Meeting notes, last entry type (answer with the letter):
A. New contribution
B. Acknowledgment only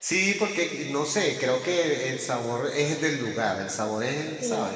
A